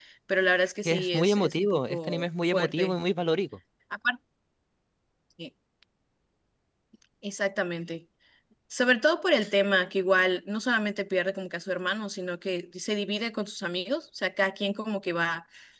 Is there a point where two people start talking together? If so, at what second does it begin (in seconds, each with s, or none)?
0.8 s